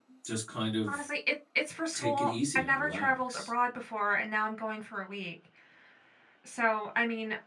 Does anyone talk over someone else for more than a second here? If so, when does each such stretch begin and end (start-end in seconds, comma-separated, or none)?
1.9-3.5